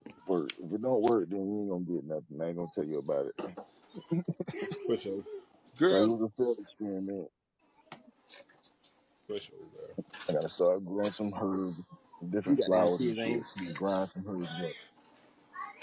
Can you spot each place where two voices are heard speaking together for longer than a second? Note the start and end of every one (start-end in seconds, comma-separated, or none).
12.4-13.8